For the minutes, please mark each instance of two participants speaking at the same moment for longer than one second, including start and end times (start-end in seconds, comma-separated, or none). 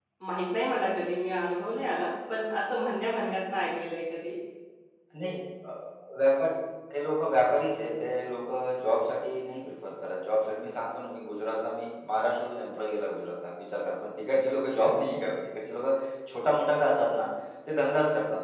none